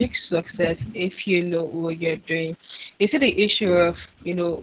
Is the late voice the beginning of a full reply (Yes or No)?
No